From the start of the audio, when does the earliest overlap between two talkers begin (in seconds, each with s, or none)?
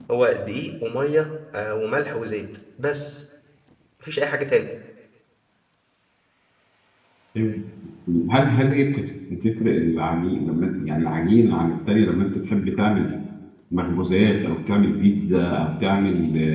none